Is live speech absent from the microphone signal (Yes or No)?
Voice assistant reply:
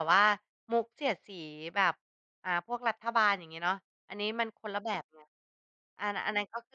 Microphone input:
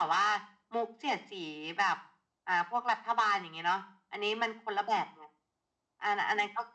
Yes